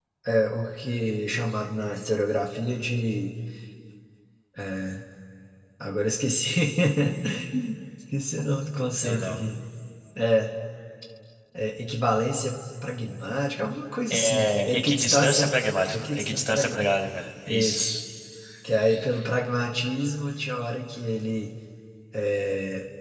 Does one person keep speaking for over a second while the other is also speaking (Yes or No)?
Yes